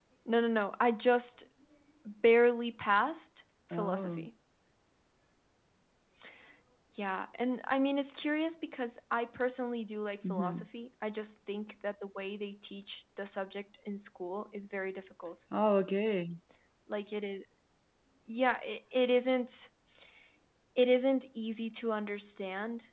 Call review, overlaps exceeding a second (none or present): none